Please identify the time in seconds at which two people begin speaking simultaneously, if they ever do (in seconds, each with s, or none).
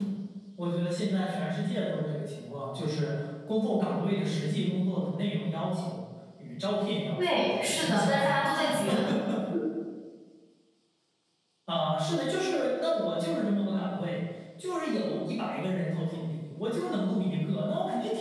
7.2 s